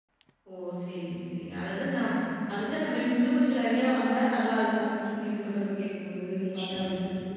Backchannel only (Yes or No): Yes